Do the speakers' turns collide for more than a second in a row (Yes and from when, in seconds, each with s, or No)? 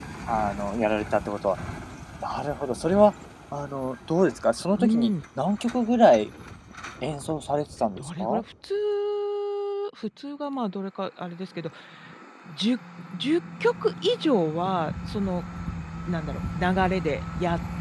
No